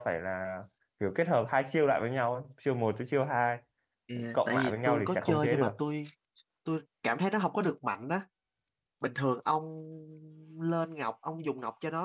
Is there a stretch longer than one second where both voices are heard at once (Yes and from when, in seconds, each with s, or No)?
Yes, from 4.3 s